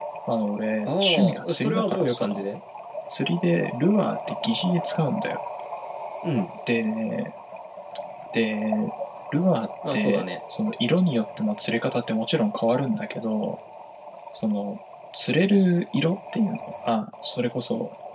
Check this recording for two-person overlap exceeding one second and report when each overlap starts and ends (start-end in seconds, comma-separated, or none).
0.8-2.3